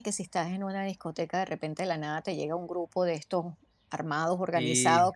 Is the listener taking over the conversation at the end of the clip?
No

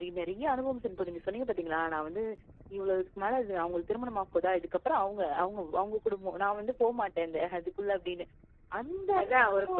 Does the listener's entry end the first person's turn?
Yes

